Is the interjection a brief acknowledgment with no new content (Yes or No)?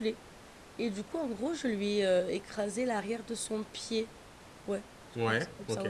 Yes